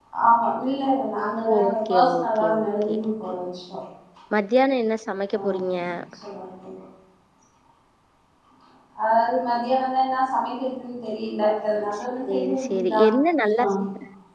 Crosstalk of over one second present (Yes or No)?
Yes